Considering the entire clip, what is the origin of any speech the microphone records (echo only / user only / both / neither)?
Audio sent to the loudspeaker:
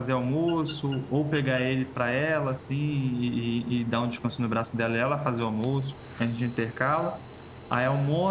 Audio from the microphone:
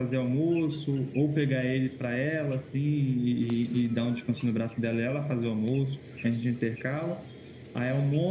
echo only